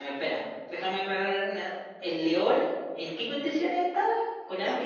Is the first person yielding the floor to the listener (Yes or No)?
Yes